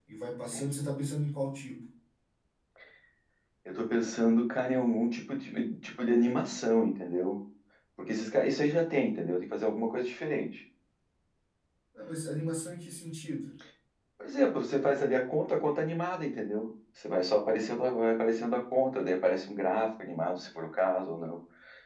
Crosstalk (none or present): none